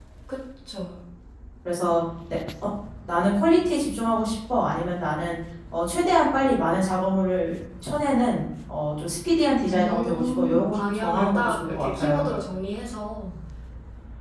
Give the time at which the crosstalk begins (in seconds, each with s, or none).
9.7 s